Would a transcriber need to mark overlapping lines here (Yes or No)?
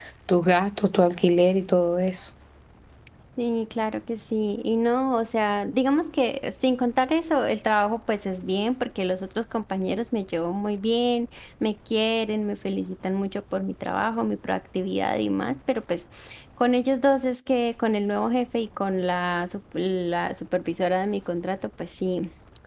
No